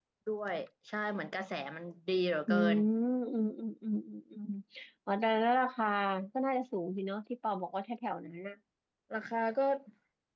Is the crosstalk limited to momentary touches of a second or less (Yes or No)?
Yes